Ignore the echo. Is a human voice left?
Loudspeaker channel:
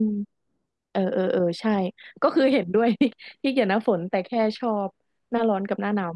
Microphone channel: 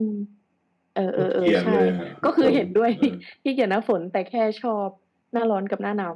Yes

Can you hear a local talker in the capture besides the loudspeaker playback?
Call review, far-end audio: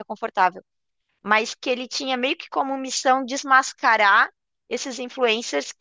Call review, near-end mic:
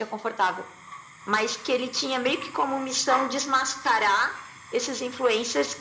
No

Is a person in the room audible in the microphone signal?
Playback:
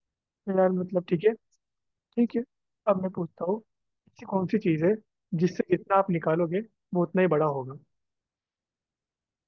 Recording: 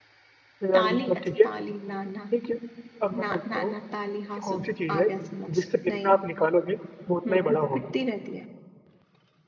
Yes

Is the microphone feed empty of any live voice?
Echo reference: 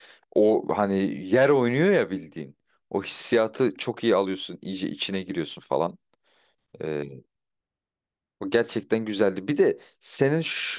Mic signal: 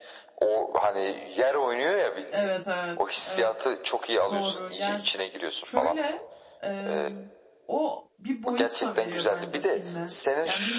No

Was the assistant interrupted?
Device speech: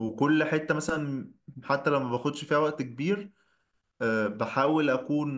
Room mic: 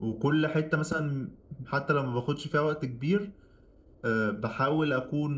No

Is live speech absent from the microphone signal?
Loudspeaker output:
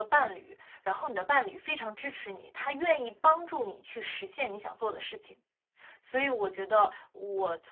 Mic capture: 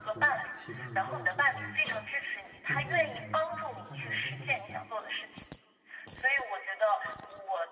No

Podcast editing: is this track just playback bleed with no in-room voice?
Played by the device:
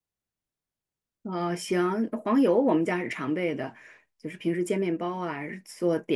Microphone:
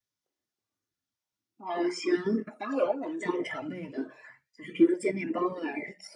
Yes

